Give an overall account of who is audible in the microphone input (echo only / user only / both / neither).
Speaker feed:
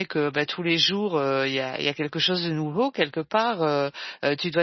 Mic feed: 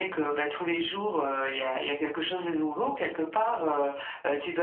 echo only